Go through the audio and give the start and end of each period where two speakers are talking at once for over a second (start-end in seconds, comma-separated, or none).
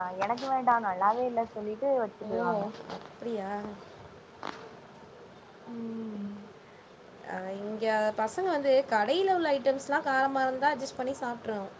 none